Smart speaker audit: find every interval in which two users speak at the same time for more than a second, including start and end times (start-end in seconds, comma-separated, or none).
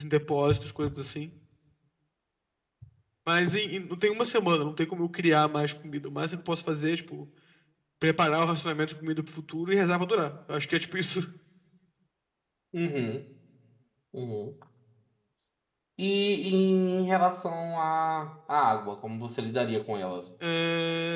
none